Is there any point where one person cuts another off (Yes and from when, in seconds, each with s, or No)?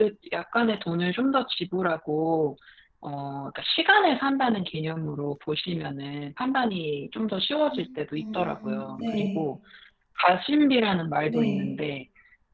Yes, from 8.1 s